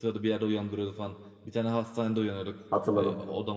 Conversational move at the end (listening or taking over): listening